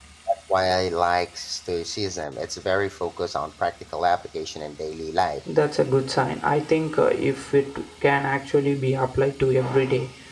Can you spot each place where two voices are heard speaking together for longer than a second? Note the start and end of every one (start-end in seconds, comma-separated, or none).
none